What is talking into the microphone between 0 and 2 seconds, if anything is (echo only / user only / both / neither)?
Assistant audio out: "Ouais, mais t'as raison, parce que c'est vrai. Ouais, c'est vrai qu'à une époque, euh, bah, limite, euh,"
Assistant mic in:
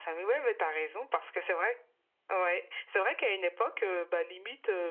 echo only